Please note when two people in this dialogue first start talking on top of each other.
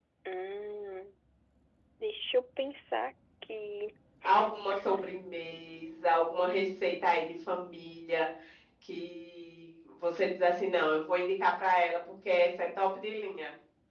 none

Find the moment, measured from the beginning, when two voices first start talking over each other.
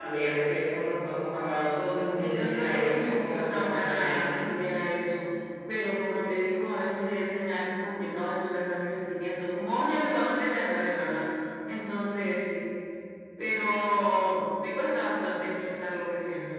2.1 s

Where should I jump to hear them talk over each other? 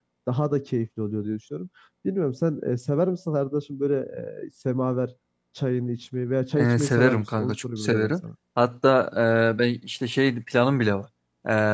6.5 s

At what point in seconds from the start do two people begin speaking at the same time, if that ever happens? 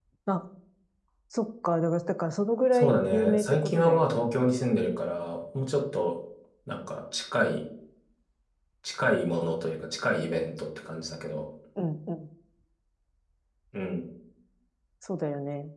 2.7 s

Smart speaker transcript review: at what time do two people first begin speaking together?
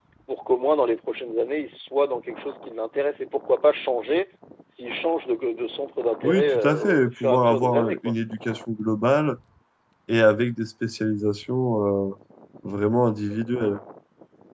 6.2 s

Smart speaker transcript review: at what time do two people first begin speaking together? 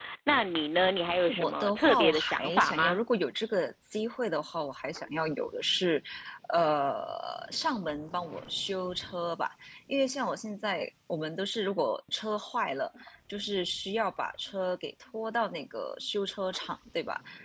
1.3 s

